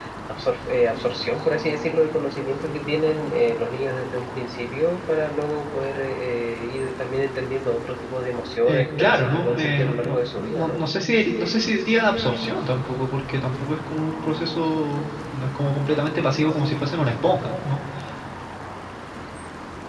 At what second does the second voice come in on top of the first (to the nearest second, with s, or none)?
9 s